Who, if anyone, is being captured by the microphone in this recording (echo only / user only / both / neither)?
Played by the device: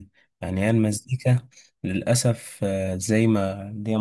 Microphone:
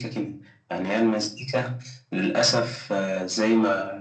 echo only